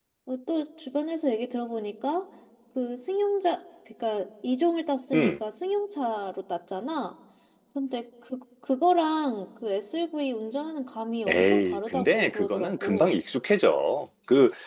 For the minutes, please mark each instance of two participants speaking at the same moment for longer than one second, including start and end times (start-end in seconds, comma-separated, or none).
11.3-13.1